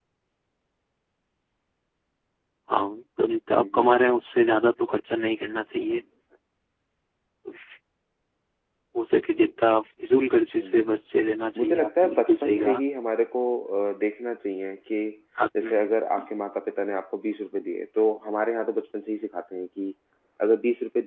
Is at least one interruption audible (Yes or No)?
Yes